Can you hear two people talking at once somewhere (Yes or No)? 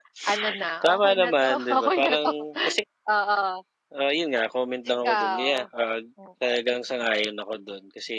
Yes